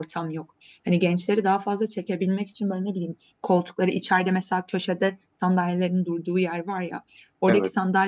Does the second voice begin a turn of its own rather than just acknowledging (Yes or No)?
No